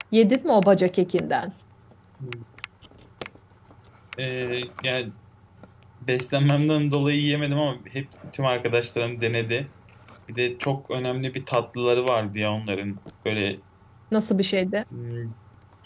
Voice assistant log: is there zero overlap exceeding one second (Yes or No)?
Yes